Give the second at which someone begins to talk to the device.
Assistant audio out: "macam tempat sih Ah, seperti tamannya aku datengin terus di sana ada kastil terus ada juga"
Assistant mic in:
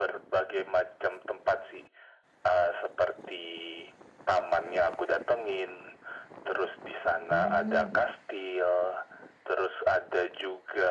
7.3 s

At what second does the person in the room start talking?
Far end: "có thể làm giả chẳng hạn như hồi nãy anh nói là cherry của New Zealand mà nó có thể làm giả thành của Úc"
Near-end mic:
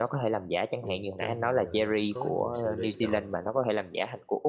0.8 s

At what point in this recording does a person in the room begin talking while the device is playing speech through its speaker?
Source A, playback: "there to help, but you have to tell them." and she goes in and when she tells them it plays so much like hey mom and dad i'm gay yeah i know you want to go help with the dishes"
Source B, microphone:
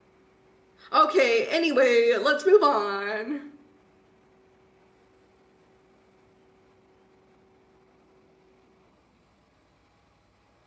0.9 s

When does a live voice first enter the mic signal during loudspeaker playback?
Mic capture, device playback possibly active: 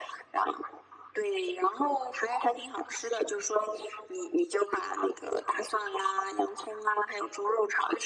none

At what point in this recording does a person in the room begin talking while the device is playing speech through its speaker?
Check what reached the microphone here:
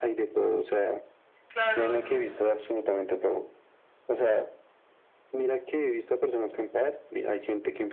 1.5 s

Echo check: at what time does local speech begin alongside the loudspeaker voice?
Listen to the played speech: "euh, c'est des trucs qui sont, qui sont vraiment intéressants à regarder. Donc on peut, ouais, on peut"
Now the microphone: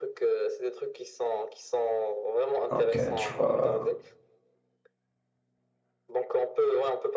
2.7 s

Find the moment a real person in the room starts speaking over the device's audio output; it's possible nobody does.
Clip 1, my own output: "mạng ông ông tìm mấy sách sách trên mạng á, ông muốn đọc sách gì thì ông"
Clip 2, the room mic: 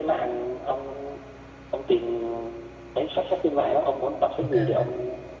4.4 s

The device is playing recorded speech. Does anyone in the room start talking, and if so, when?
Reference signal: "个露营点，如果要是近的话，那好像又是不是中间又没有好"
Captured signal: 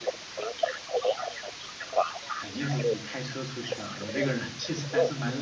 2.3 s

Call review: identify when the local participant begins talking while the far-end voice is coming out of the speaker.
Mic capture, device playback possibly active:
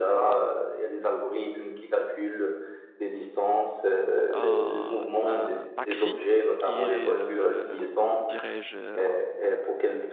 4.3 s

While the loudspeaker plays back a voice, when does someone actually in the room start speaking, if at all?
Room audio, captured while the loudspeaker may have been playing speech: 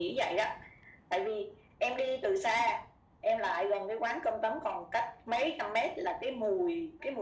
none

